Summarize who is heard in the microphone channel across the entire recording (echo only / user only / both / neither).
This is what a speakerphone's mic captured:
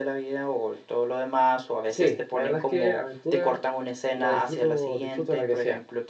echo only